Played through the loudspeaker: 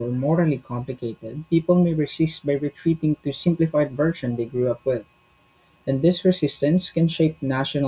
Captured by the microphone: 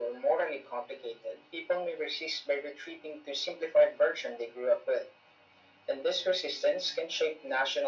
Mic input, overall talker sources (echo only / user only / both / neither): echo only